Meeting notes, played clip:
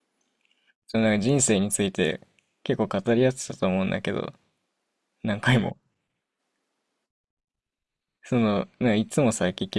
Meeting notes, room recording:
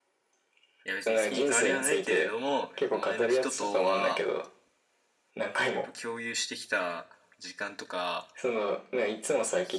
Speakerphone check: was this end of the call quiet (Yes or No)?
No